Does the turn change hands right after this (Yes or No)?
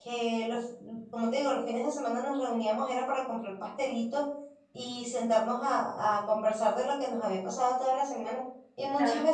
No